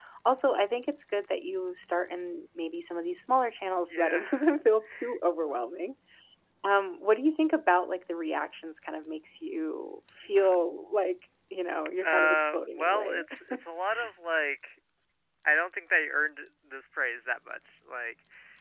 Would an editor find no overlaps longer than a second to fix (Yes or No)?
No